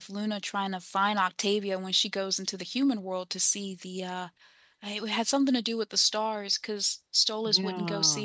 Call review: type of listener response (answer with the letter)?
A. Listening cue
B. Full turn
A